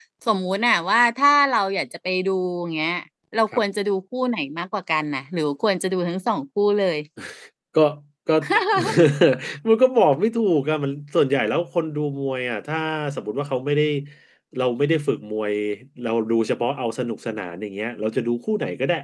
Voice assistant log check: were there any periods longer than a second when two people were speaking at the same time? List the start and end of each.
none

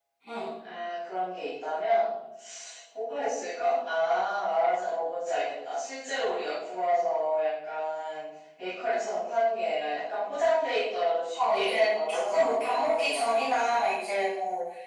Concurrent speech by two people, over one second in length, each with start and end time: 11.5-13.8

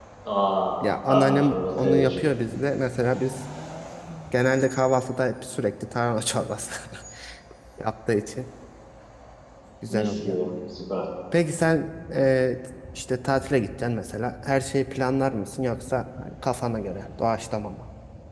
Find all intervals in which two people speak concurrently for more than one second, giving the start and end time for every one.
0.8-2.2

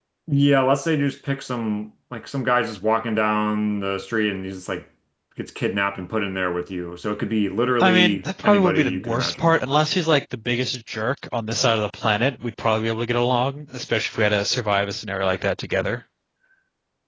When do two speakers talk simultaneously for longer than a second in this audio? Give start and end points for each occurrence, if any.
7.8-9.5

